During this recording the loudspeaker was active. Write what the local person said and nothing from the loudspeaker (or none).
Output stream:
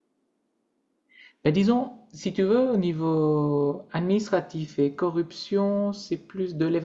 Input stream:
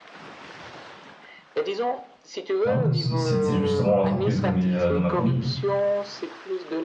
ouais, bah, c'est- c'était justement l'entreprise de mes, euh, de ma famille,